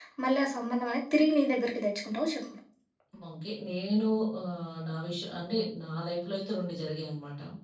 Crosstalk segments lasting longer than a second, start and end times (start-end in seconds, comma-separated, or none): none